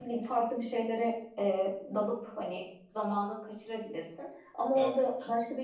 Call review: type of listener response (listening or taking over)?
listening